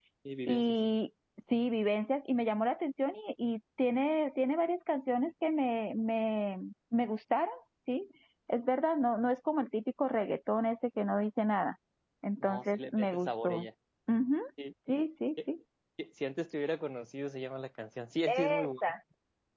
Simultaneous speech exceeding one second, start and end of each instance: 12.4-13.7

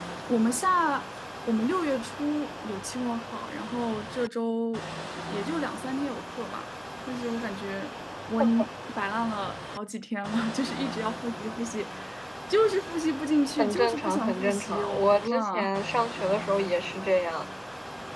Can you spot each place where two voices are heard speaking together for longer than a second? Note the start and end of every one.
13.6-15.8

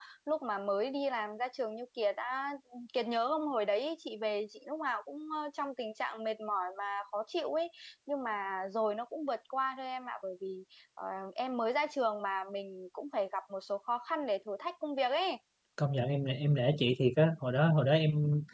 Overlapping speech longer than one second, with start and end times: none

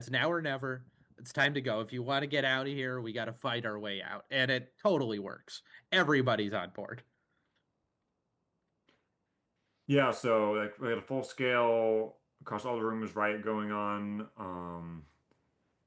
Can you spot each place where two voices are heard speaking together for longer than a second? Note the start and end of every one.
none

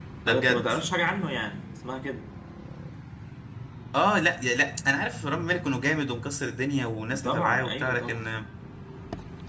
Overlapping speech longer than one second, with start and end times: 7.1-8.4

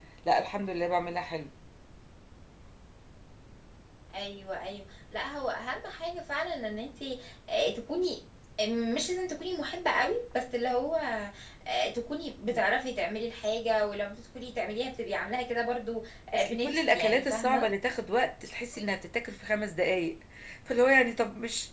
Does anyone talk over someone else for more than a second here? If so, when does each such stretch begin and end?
16.3-17.7

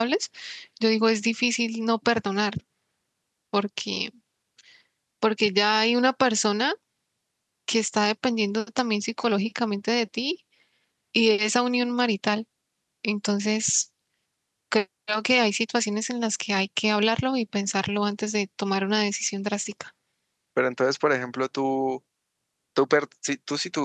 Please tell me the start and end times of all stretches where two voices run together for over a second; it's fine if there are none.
none

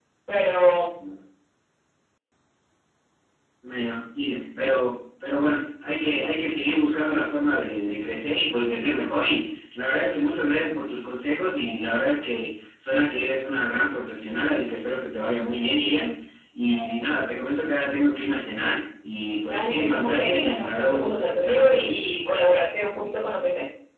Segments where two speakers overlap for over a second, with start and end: 19.5-22.0

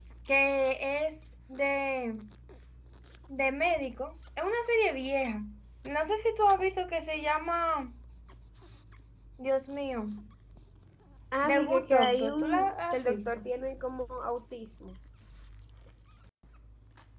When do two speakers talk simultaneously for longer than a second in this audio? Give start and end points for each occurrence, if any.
11.5-13.4

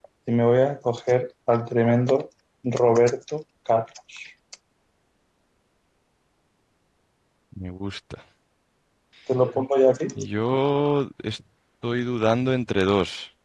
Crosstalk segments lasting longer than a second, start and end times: none

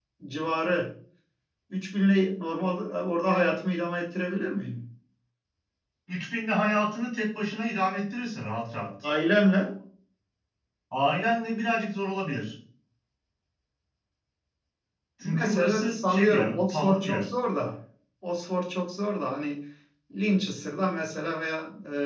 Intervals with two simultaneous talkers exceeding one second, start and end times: 15.2-17.2

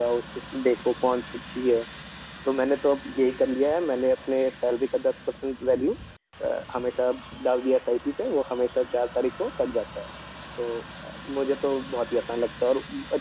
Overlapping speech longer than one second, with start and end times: none

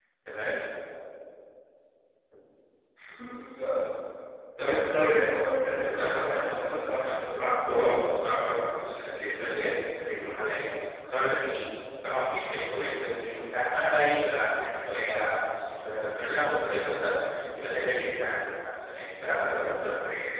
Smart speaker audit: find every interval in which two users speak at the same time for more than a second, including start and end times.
5.7-7.2

